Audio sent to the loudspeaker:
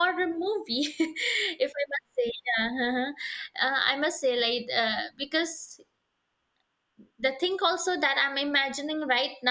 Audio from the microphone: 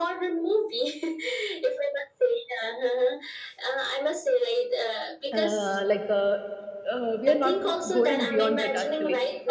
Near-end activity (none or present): present